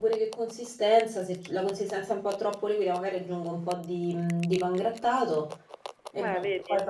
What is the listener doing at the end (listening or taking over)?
listening